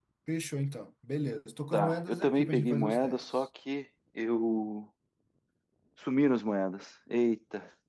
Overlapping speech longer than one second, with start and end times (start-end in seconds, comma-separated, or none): 1.7-3.5